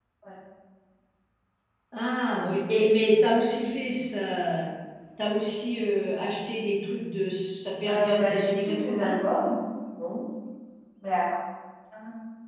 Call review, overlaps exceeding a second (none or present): present